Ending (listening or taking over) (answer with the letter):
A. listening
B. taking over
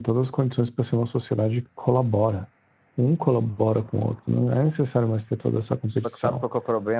B